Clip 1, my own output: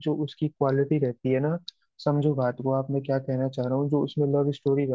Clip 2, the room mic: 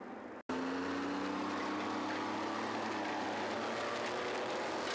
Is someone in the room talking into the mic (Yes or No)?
No